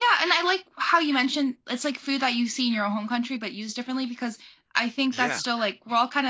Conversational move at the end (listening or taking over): listening